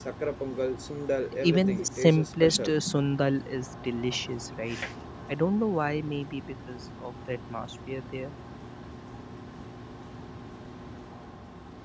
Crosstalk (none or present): present